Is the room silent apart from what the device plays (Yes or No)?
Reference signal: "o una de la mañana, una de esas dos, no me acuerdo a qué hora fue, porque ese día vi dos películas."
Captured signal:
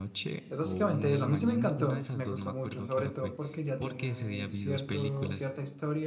No